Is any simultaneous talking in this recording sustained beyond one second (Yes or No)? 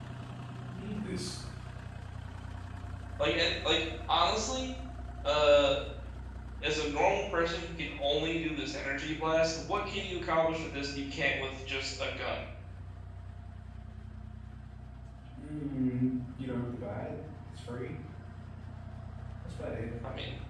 No